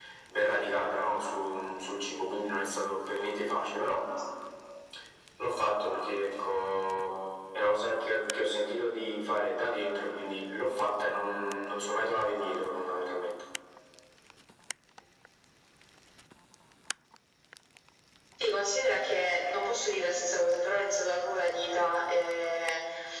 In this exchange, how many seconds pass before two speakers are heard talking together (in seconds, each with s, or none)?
none